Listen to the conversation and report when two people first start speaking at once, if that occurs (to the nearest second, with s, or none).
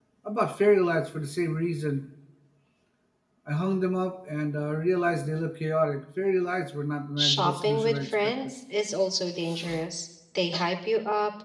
7 s